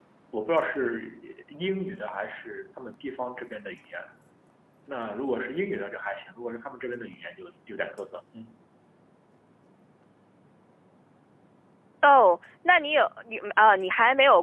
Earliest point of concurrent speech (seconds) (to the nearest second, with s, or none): none